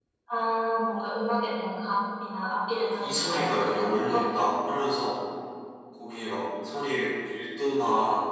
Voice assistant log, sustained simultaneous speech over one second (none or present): present